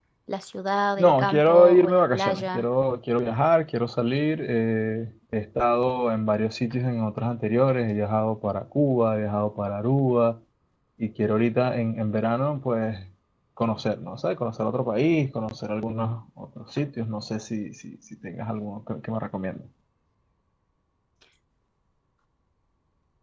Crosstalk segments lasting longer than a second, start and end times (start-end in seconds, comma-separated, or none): 1.0-2.7